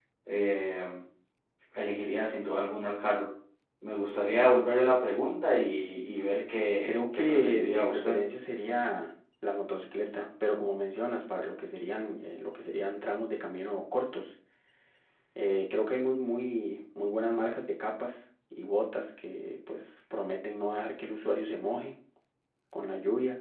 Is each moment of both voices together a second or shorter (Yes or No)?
No